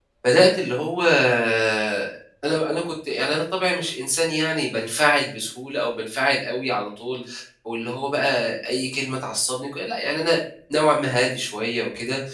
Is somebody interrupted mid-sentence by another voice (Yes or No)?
No